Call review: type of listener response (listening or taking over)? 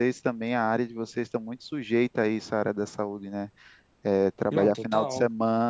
listening